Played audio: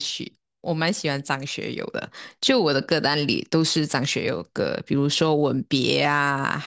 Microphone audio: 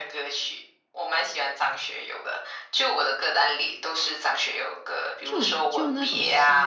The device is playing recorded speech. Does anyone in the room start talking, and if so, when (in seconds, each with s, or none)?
5.2 s